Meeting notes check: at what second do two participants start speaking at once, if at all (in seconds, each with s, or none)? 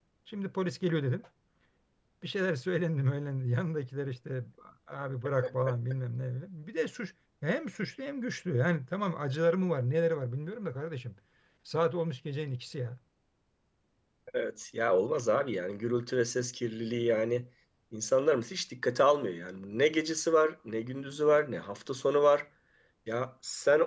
none